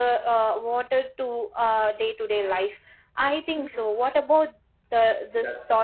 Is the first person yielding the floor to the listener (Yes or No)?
Yes